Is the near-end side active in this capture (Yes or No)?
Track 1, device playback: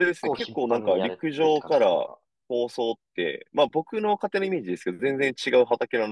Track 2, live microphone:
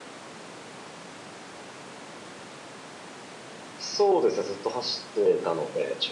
Yes